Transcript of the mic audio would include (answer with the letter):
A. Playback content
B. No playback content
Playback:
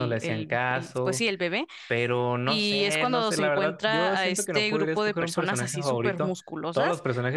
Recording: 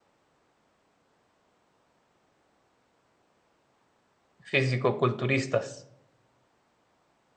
B